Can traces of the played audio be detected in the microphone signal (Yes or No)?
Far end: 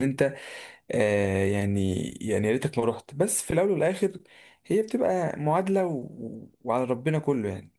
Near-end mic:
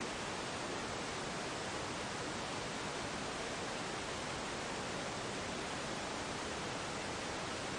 No